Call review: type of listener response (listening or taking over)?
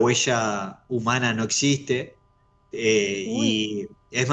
listening